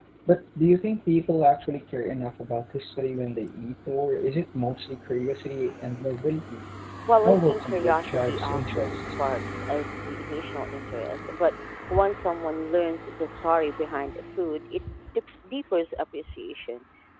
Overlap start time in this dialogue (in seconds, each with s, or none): 7.2 s